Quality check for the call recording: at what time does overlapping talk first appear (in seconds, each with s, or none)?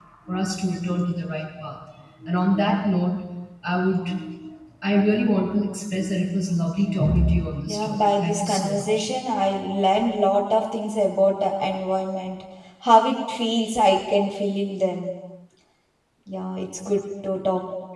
7.7 s